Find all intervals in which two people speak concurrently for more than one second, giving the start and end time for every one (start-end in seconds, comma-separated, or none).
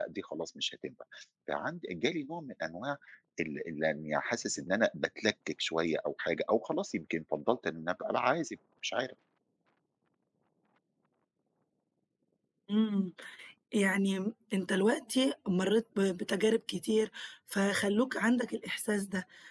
none